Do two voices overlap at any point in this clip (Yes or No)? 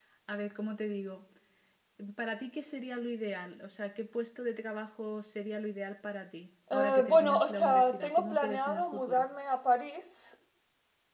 Yes